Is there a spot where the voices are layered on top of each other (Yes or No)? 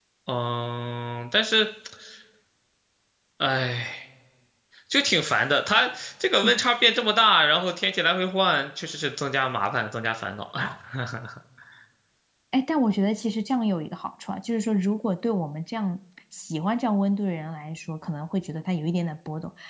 No